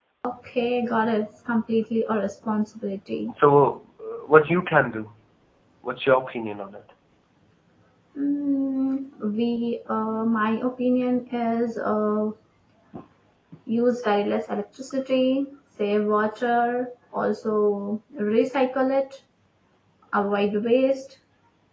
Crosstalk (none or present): none